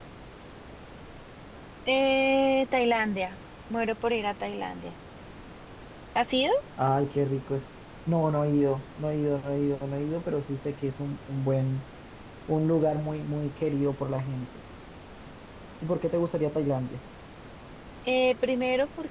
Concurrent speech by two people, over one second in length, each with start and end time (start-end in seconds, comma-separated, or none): none